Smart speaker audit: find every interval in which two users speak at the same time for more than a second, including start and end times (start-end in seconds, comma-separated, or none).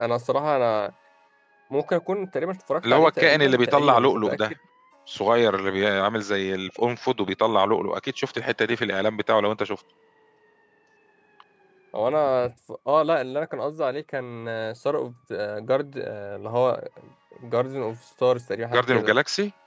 2.9-4.4